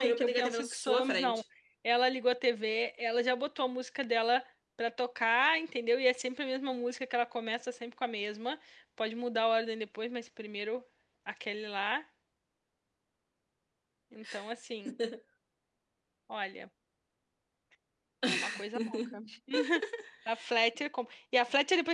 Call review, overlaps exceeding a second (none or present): present